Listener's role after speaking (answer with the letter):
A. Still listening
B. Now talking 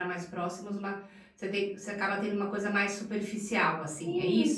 B